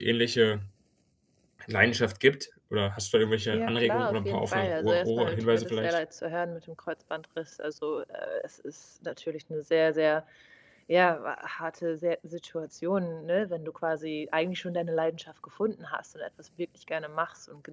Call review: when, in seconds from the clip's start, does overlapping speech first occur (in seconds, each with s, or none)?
3.5 s